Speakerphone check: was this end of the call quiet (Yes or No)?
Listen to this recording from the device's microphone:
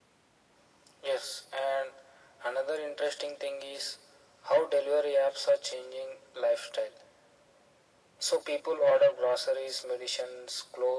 Yes